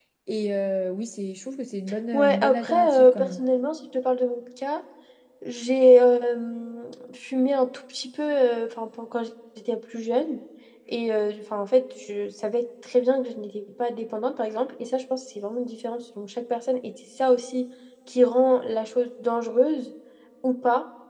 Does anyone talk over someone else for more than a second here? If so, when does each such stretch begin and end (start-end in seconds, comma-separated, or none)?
2.1-3.4